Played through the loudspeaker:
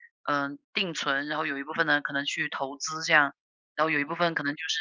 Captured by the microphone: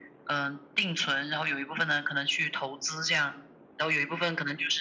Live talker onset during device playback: none

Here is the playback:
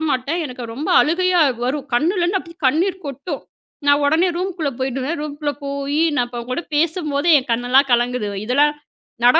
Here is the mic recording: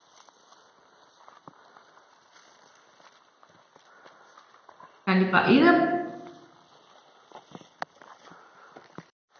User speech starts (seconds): 5.1 s

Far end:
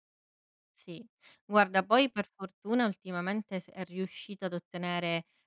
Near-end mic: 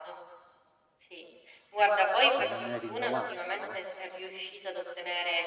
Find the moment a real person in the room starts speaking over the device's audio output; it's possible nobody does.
2.3 s

